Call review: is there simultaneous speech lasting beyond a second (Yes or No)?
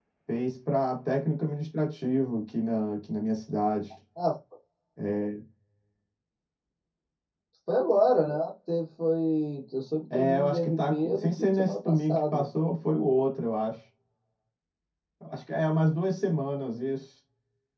Yes